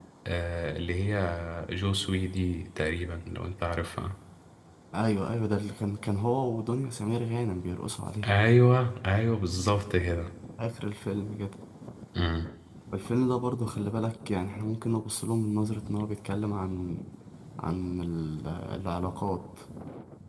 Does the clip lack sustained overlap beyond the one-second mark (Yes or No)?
Yes